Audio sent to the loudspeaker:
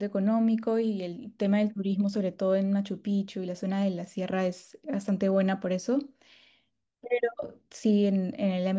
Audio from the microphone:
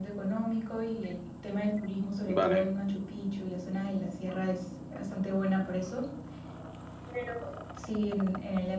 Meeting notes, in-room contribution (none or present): present